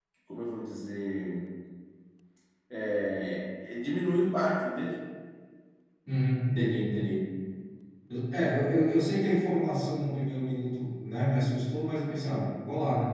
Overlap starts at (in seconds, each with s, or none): none